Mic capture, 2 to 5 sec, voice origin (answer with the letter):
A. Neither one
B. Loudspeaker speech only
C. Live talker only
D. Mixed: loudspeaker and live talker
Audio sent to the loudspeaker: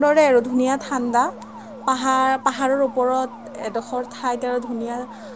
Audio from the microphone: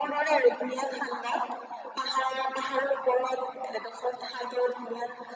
B